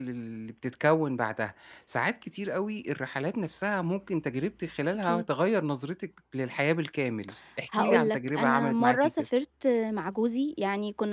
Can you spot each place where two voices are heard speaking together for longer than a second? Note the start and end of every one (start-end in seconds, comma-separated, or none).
7.7-9.1